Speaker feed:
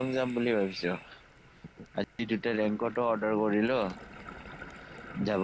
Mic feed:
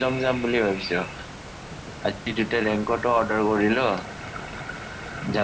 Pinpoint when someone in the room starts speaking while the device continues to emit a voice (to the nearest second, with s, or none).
none